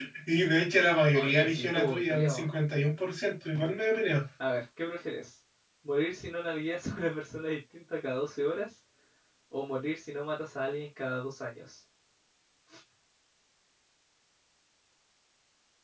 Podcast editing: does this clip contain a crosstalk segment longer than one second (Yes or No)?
Yes